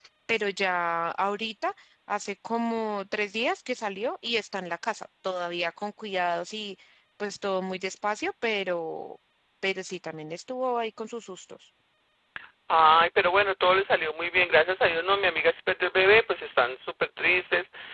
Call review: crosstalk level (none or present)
none